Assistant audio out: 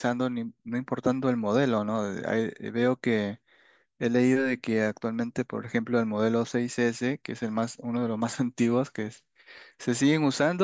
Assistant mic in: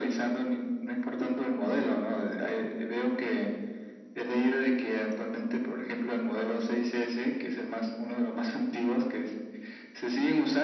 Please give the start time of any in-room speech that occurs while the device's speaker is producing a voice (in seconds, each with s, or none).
none